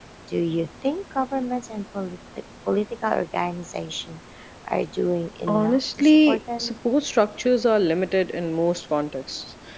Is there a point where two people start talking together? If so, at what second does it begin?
5.5 s

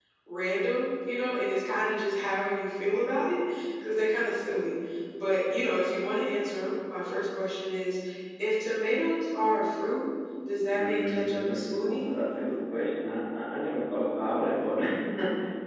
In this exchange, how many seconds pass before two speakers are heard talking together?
10.7 s

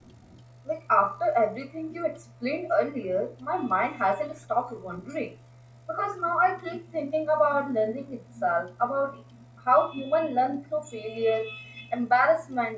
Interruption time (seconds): none

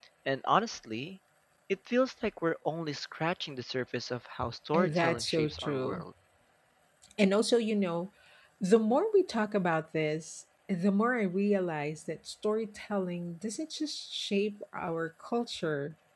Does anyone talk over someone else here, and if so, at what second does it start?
4.7 s

